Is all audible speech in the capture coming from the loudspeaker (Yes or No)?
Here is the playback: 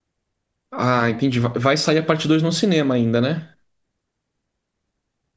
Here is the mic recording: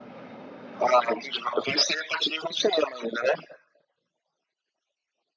Yes